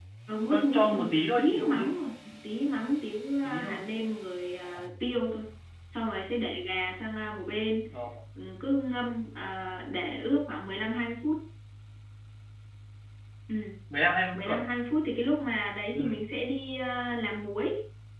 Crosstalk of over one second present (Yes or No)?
Yes